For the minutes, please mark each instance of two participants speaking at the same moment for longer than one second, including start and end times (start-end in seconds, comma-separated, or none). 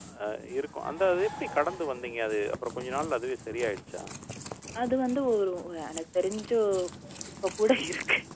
none